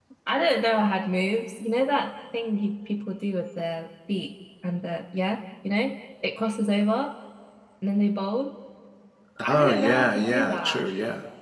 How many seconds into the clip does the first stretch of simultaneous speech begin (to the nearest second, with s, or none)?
9 s